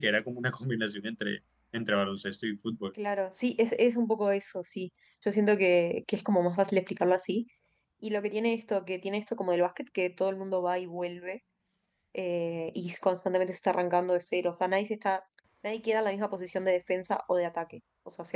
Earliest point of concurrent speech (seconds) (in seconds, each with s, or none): none